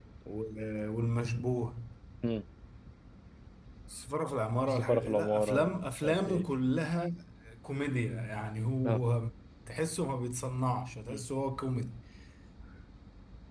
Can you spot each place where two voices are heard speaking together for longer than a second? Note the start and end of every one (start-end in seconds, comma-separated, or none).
4.7-6.4